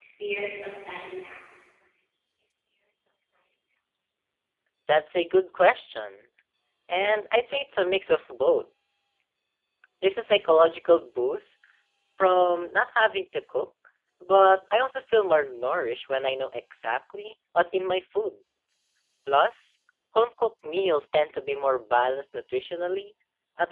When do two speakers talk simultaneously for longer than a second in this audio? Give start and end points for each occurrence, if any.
none

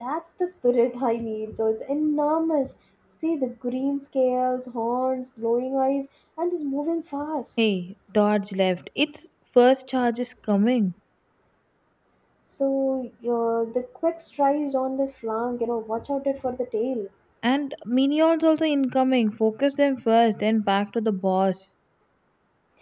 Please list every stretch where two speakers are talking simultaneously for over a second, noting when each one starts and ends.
none

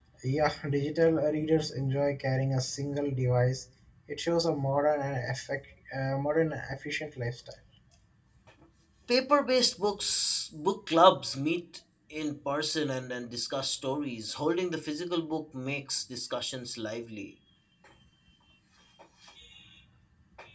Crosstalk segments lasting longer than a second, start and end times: none

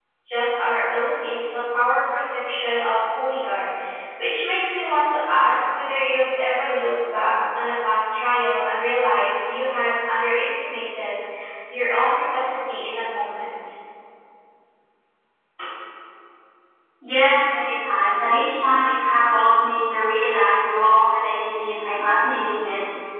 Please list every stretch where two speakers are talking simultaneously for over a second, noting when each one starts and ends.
none

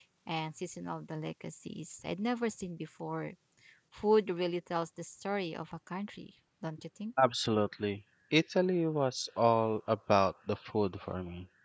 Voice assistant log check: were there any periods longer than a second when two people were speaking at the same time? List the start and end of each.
none

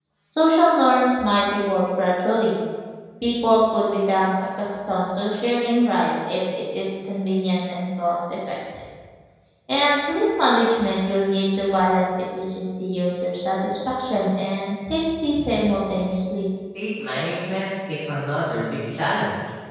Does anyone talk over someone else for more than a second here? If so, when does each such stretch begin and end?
none

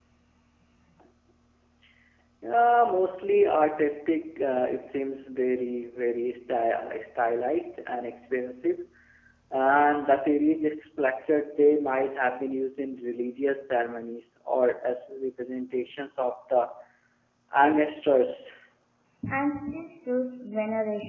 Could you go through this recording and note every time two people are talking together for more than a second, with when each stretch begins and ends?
none

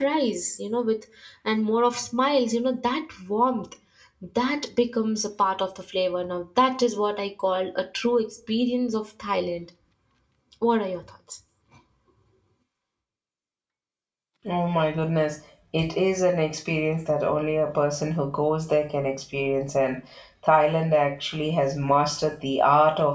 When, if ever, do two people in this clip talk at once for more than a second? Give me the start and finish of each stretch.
none

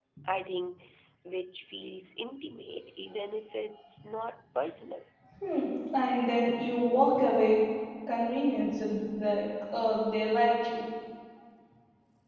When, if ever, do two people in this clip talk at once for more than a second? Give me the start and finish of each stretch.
none

